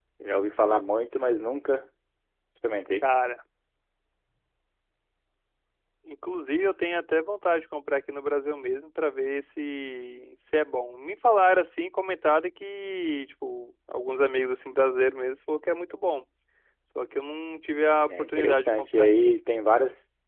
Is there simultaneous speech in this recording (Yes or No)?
Yes